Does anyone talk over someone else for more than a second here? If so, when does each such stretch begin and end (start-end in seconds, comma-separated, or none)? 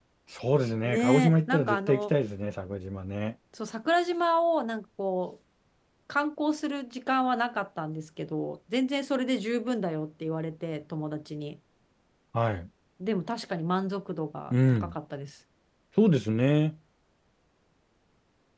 0.8-2.1